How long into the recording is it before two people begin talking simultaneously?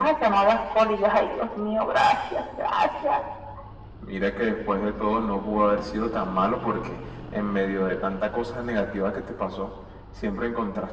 none

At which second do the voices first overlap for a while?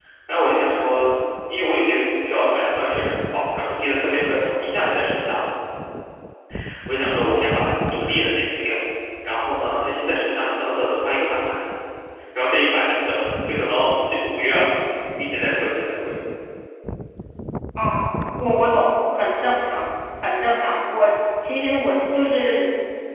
none

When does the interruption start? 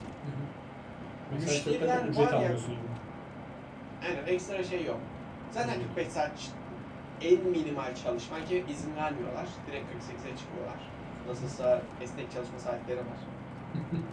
1.3 s

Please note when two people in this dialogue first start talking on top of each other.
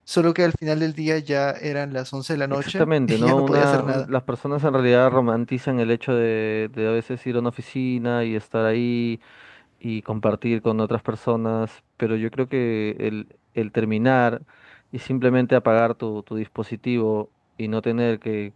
2.5 s

